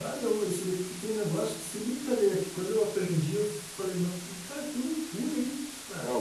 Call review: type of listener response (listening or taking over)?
listening